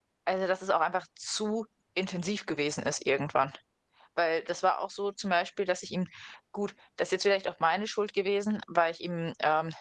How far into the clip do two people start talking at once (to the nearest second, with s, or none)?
none